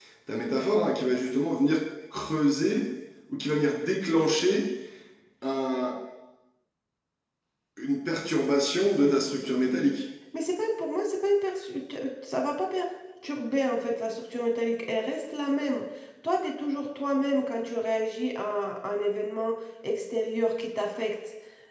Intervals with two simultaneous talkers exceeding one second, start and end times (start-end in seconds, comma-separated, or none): none